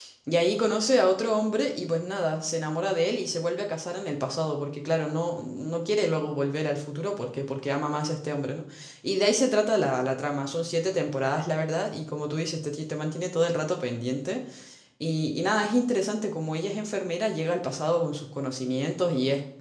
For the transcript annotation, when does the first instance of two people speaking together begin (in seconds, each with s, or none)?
none